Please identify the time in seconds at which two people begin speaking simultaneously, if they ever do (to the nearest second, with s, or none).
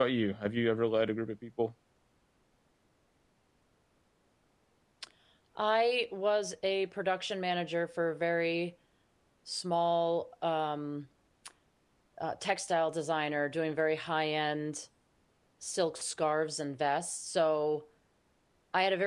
none